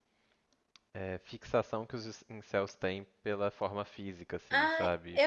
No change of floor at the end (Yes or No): No